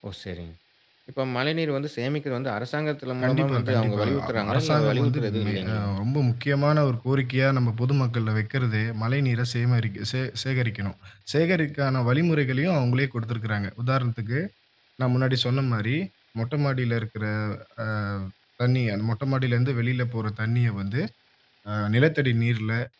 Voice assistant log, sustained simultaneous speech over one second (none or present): present